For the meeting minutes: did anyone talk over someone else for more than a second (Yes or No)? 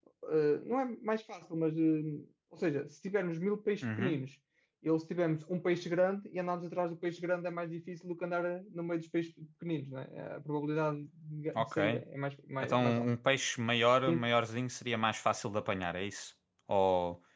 No